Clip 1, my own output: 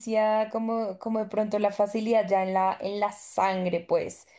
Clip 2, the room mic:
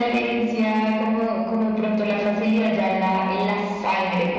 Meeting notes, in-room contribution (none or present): none